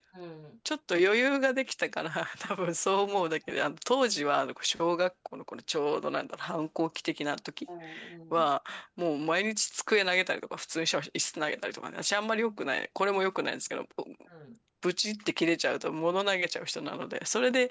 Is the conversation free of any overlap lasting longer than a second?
Yes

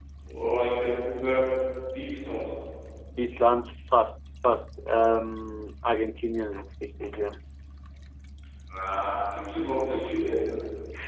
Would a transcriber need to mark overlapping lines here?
No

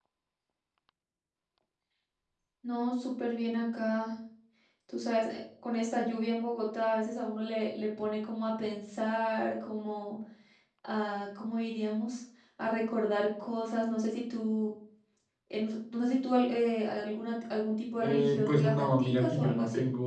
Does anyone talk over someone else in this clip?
Yes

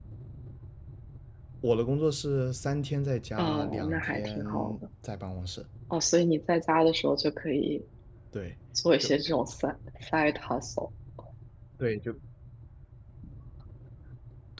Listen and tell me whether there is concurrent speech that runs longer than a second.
Yes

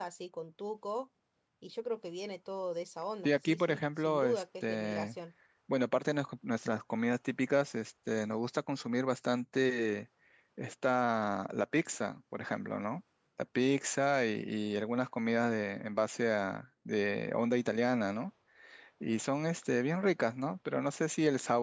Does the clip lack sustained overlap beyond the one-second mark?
No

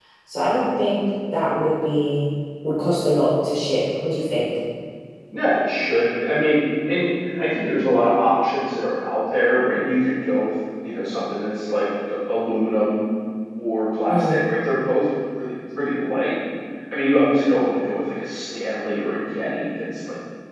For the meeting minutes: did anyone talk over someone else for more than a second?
No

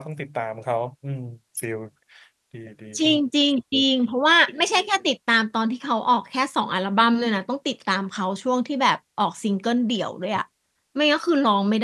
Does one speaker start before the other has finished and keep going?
No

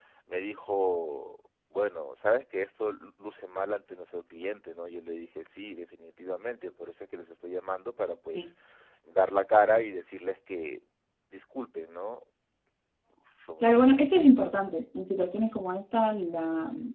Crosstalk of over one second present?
No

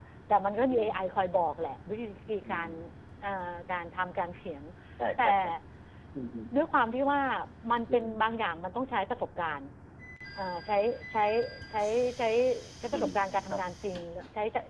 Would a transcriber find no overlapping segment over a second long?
Yes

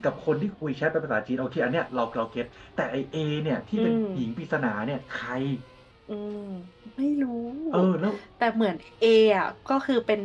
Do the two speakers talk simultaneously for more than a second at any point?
No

